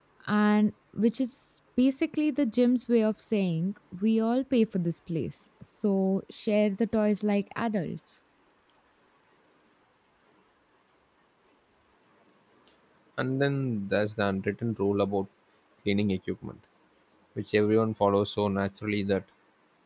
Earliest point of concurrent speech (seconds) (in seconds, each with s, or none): none